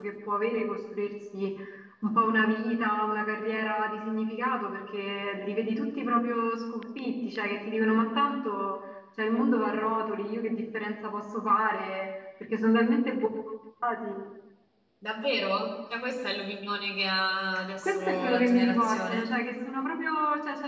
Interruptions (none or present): present